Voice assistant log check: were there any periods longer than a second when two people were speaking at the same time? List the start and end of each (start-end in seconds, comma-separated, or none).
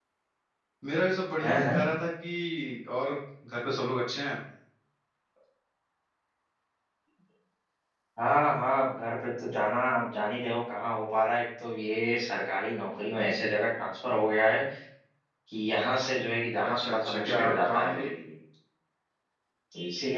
16.7-18.0